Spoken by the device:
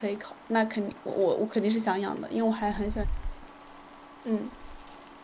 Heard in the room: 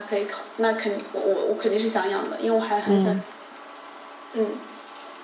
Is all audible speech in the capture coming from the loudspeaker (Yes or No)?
No